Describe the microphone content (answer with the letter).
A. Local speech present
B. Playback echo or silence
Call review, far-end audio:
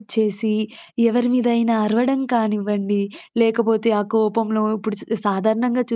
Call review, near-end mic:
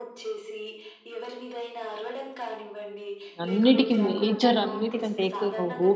A